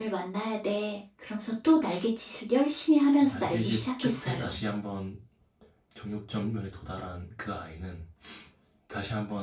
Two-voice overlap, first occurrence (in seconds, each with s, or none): 3.2 s